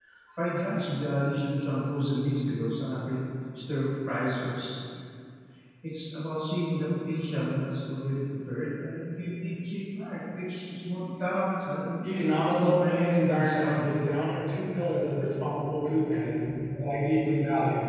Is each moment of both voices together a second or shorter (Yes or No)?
No